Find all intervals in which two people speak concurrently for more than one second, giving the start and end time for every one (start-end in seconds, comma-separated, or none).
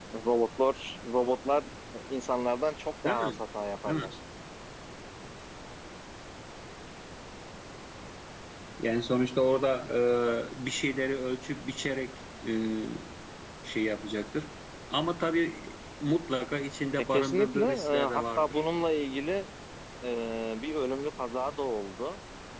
17.1-18.6